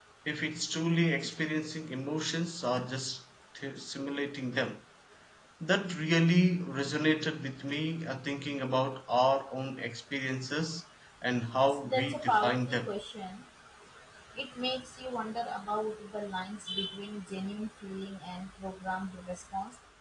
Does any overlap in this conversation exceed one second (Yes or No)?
Yes